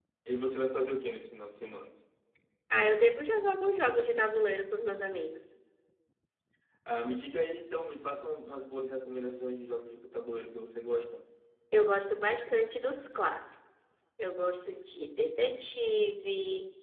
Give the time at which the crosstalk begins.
none

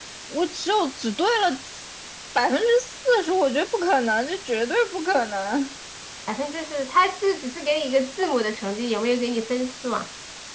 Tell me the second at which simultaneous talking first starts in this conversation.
none

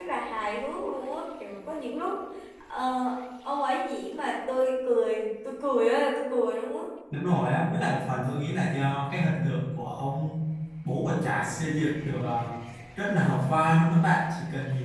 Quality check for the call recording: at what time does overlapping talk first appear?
none

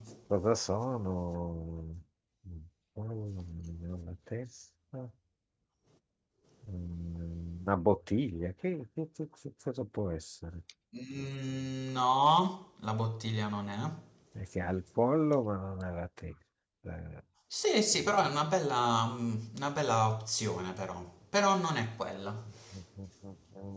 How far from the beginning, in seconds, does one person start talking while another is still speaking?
none

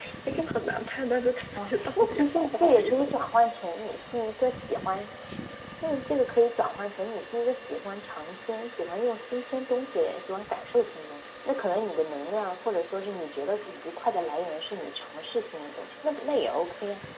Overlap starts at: 2 s

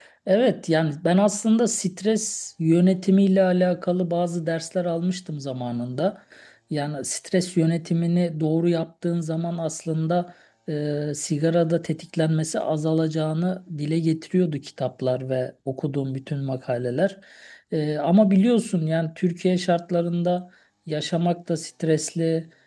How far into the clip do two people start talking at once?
none

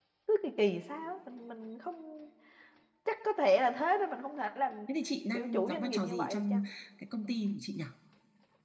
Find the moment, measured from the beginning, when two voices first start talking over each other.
5 s

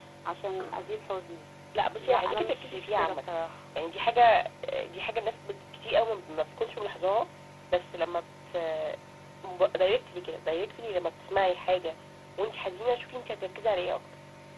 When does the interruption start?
2 s

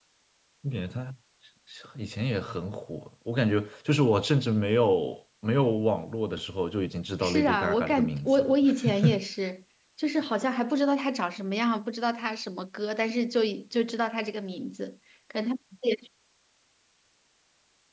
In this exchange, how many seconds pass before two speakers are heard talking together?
7 s

